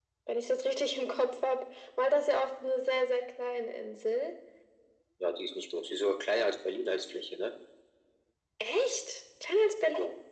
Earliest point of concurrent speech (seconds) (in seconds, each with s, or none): none